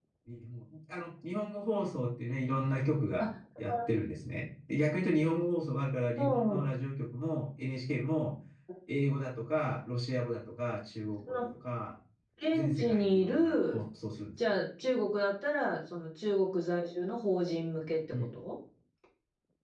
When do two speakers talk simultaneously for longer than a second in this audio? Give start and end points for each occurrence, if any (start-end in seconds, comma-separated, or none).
12.5-13.8